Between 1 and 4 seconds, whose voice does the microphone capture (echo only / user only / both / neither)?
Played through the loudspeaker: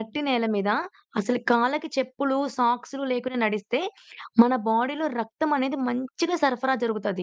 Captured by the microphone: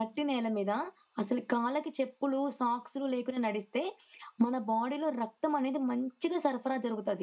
echo only